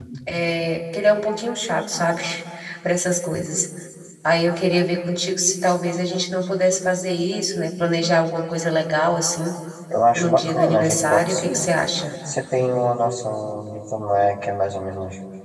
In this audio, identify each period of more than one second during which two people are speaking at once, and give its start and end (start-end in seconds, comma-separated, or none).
10.2-11.7